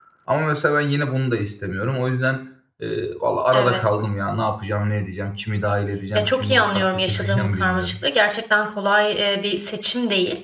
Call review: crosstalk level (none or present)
present